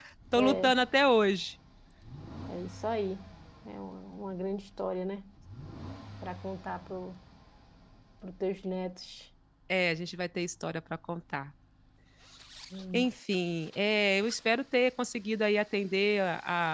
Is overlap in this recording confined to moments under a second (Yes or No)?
Yes